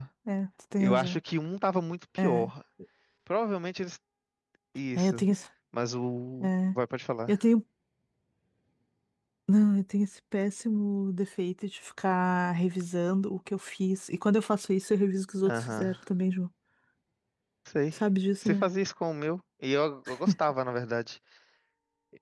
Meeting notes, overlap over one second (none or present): none